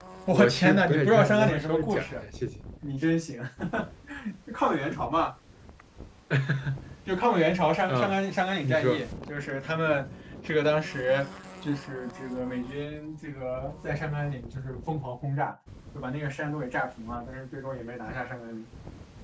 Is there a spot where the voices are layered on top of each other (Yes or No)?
Yes